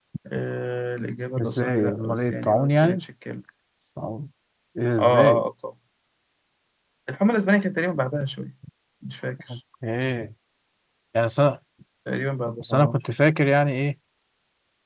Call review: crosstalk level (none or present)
present